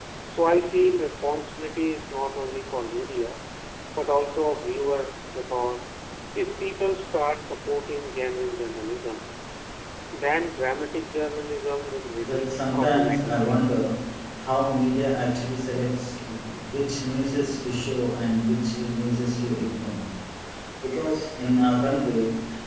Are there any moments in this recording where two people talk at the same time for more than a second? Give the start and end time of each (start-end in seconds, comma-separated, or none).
12.3-13.6